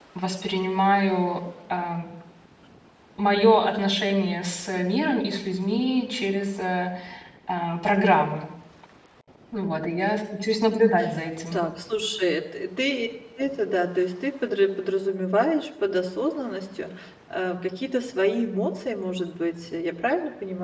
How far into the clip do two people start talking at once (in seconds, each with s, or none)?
none